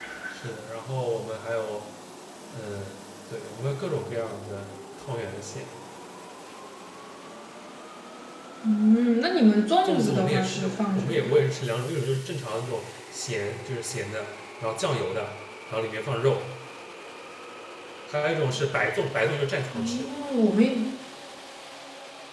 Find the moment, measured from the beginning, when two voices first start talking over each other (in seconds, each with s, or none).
9.8 s